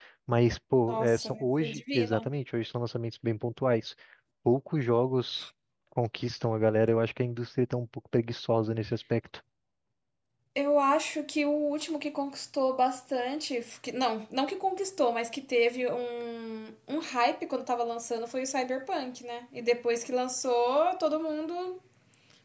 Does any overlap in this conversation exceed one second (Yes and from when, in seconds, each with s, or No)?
Yes, from 0.8 s